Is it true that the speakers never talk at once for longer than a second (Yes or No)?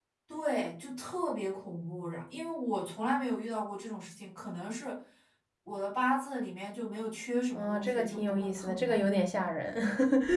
No